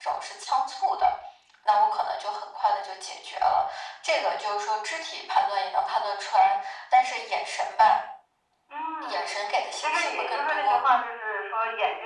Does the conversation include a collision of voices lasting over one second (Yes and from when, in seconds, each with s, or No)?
Yes, from 9.0 s